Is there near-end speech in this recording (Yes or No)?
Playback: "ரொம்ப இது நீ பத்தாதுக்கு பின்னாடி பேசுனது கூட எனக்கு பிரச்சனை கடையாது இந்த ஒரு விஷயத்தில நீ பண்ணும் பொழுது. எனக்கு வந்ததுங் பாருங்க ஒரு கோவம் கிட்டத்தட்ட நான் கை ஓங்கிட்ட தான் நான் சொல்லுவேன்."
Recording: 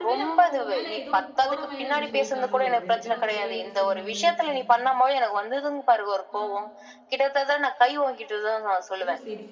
Yes